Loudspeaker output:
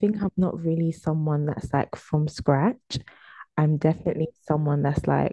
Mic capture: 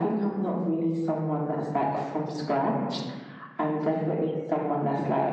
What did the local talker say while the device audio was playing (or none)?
none